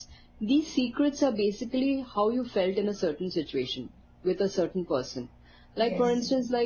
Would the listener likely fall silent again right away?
Yes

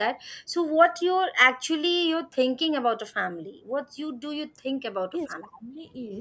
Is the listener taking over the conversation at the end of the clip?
Yes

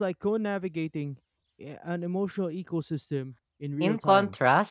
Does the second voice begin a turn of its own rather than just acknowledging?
Yes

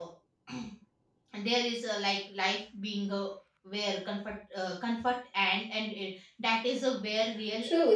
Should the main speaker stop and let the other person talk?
Yes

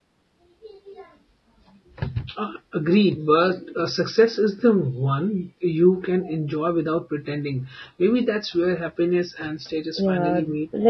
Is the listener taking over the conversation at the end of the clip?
Yes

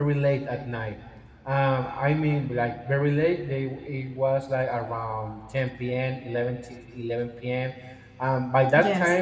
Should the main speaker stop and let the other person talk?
No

